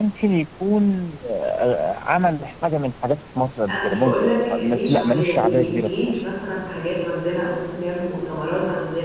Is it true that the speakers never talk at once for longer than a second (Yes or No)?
No